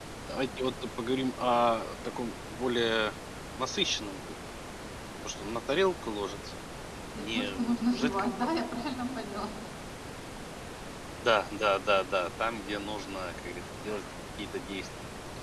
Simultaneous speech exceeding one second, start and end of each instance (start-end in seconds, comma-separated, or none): 7.2-8.5